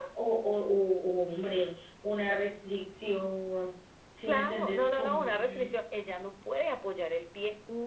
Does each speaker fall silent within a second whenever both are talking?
No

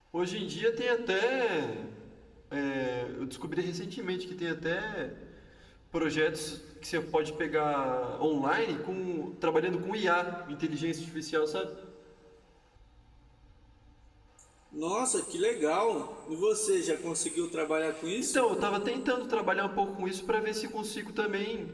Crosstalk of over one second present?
No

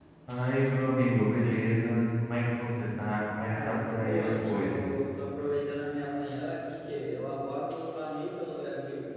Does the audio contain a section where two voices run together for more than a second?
Yes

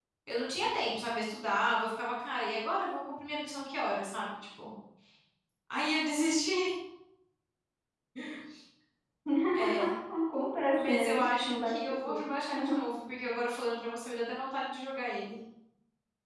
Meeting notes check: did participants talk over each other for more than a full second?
Yes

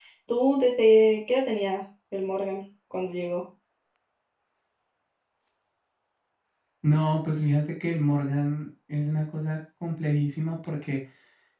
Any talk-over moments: No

